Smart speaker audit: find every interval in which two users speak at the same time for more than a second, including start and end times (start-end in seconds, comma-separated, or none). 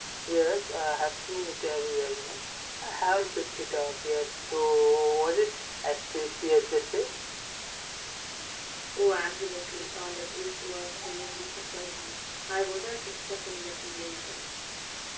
none